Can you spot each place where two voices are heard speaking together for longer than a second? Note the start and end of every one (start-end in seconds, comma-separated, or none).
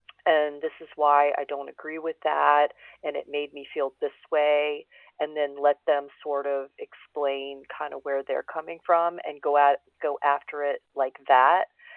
none